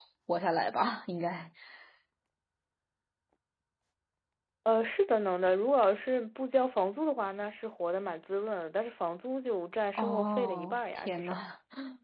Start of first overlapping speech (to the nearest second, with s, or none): 10 s